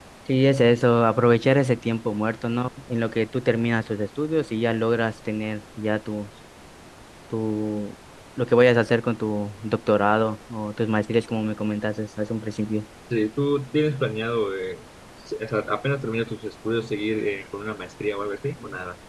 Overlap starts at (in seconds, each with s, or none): none